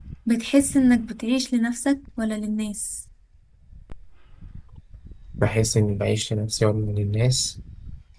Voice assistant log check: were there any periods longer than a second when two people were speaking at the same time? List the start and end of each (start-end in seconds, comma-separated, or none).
none